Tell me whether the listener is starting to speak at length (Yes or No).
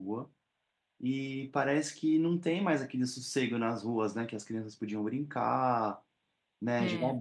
No